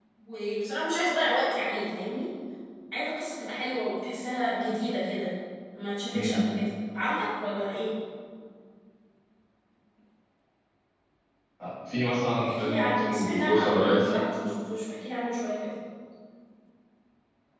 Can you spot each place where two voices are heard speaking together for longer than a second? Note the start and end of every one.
12.4-14.1

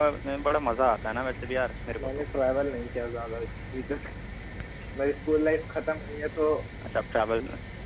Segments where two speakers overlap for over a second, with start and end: none

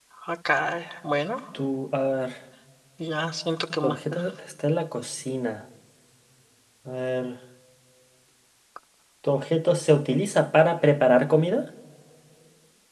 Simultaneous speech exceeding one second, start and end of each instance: none

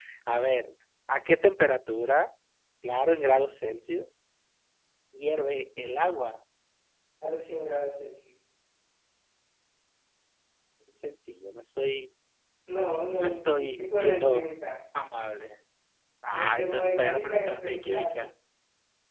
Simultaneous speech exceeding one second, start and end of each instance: 13.2-14.5, 16.3-18.2

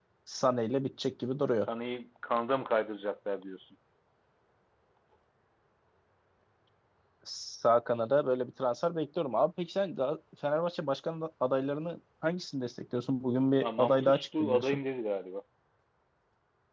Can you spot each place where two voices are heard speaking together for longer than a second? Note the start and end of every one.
13.6-14.8

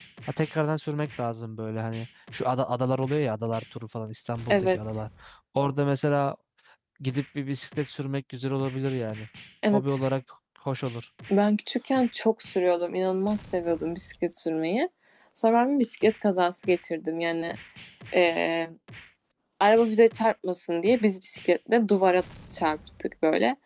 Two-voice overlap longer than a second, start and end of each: none

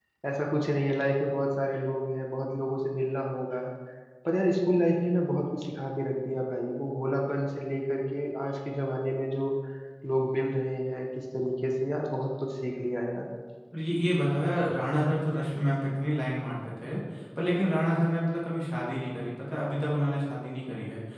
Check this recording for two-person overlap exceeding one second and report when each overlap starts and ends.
none

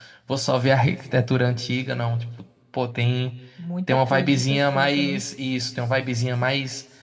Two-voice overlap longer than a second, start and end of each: 3.9-5.2

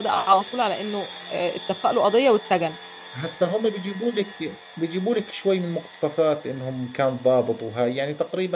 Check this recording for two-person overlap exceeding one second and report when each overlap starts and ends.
none

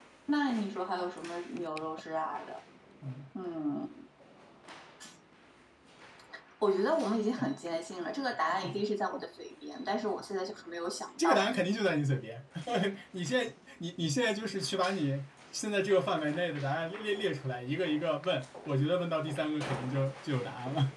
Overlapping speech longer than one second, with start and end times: none

